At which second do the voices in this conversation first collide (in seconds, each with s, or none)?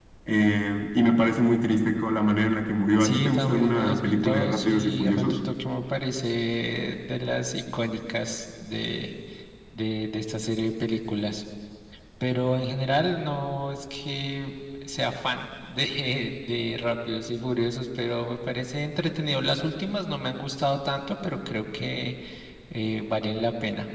3.0 s